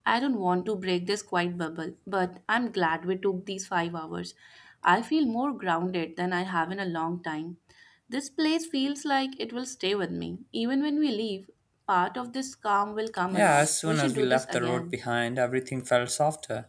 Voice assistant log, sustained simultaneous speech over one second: present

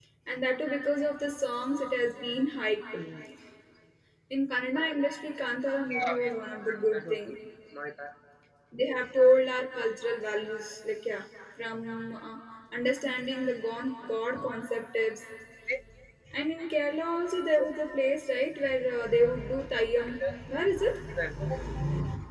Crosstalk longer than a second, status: none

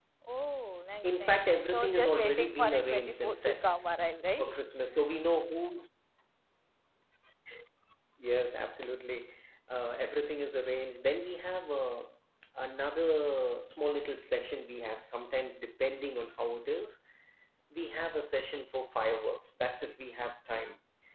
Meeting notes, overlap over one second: present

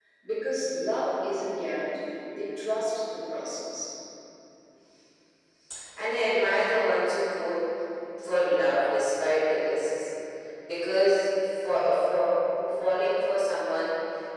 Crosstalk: none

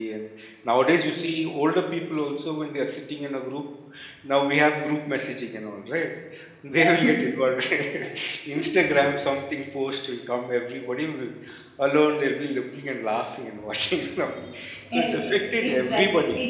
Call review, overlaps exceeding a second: present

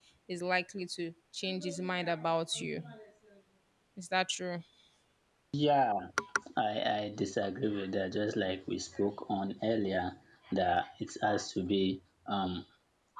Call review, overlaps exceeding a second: none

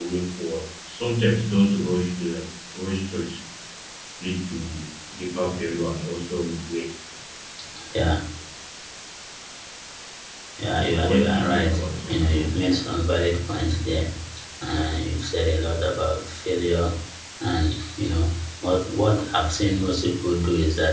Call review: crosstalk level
present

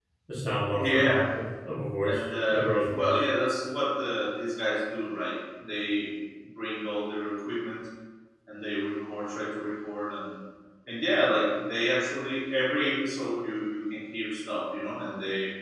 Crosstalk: present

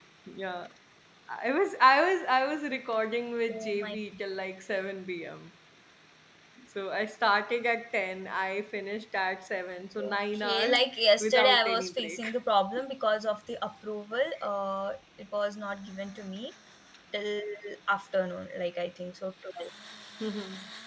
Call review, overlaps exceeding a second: present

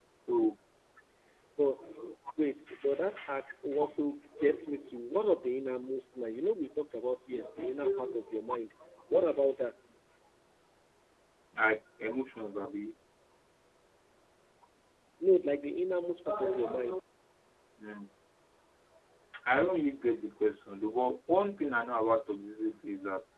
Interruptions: none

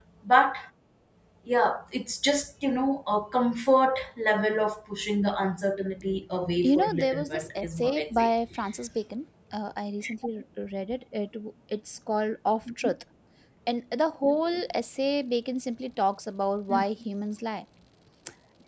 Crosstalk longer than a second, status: present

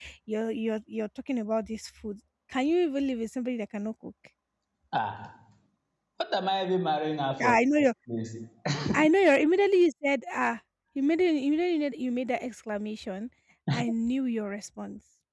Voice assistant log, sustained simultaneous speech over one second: none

